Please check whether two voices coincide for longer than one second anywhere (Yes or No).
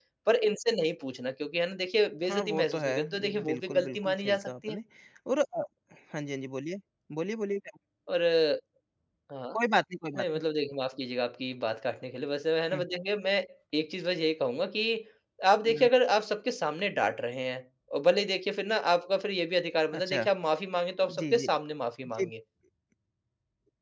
Yes